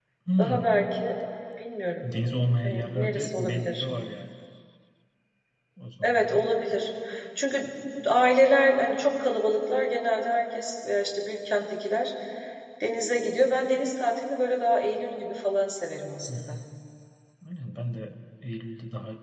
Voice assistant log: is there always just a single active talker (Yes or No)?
No